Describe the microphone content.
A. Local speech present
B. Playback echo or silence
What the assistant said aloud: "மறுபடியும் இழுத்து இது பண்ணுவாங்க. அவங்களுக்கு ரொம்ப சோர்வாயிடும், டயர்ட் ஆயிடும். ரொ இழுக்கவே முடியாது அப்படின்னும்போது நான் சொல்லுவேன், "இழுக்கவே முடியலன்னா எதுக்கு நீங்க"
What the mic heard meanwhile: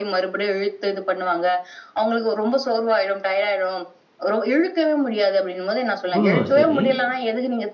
A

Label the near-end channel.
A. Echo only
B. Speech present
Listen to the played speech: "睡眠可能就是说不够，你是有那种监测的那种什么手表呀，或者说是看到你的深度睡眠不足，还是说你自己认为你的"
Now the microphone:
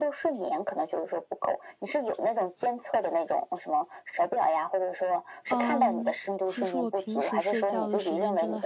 B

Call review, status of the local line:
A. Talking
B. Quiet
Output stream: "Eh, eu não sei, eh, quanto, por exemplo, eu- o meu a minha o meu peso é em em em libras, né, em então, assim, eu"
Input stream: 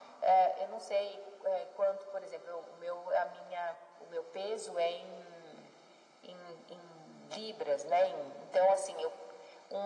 B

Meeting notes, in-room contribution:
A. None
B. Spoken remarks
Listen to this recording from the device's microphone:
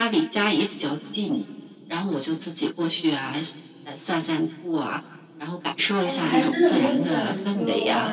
B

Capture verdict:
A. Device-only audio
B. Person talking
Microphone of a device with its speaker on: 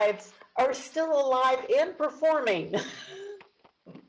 A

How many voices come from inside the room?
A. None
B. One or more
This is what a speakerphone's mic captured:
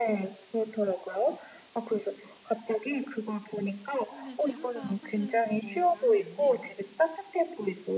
B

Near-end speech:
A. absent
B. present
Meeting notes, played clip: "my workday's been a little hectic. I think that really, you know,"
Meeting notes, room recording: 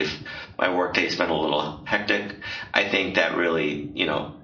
A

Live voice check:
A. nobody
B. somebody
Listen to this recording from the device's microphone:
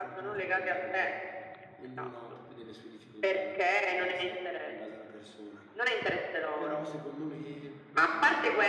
B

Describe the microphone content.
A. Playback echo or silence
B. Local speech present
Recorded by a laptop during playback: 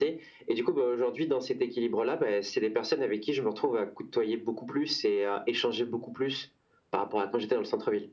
A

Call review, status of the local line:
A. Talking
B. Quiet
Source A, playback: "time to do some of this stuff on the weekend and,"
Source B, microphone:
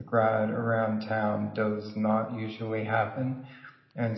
A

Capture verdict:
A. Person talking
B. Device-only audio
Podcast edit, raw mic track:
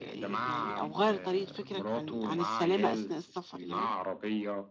A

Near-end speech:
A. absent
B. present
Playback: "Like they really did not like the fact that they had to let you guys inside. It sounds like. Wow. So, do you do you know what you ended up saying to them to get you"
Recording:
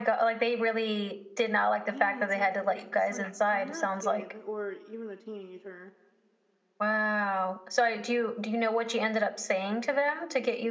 B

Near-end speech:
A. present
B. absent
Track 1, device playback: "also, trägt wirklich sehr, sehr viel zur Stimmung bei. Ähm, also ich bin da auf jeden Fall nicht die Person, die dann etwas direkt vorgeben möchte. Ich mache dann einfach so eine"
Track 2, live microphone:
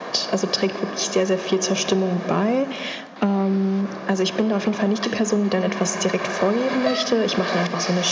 B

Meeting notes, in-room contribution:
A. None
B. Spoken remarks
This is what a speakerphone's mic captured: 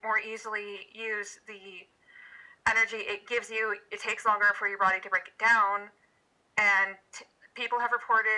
A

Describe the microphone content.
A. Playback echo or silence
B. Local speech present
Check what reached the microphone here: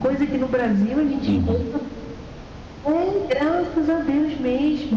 B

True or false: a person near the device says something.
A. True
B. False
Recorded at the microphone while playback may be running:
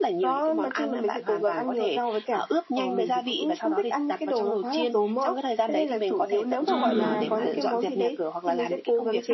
A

